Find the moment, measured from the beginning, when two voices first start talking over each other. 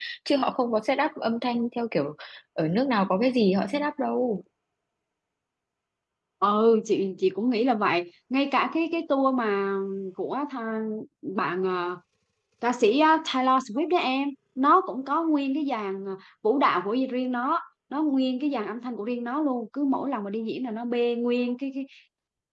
none

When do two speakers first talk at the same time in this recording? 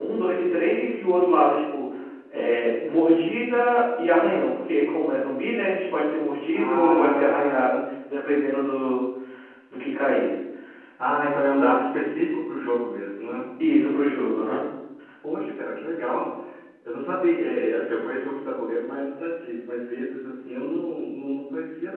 6.5 s

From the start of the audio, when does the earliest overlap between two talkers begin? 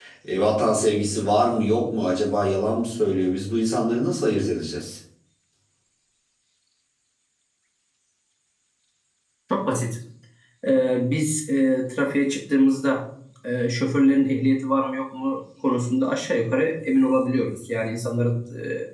none

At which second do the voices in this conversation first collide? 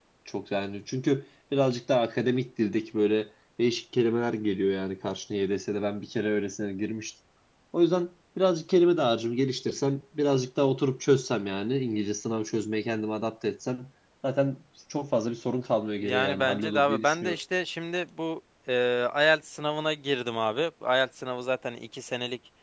16.0 s

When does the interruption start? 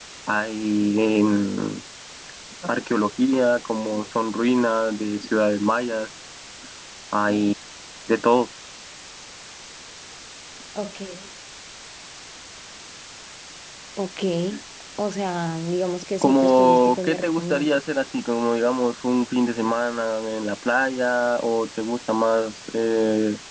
16.2 s

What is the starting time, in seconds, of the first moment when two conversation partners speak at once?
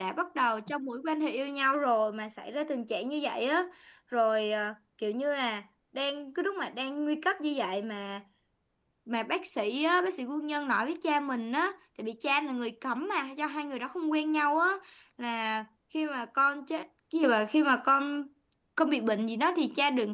none

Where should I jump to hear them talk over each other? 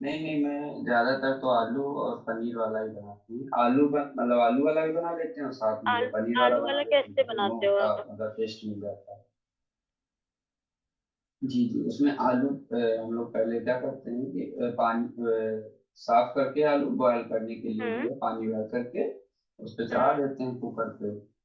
5.9 s

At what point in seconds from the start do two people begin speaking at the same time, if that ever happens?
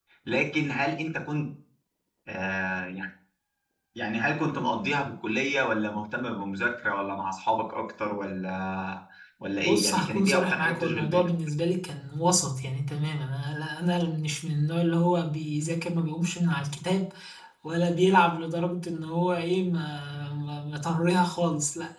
9.6 s

